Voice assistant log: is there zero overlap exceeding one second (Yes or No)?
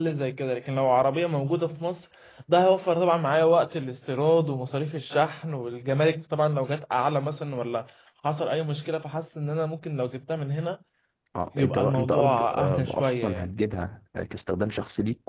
No